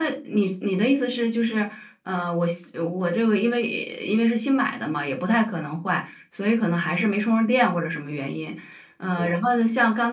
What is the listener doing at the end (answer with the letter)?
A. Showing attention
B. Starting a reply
A